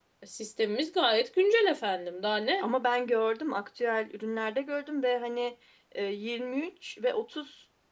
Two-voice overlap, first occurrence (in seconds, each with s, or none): none